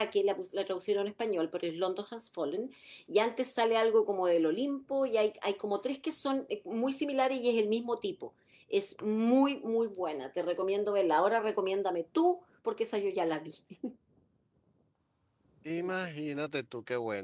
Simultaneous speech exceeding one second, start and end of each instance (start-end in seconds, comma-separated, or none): none